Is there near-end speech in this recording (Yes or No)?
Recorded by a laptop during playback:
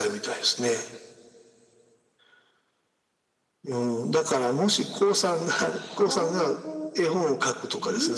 Yes